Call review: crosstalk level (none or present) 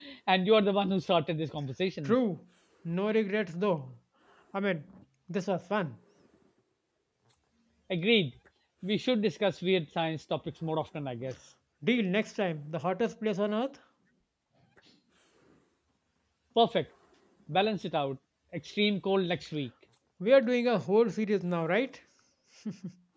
none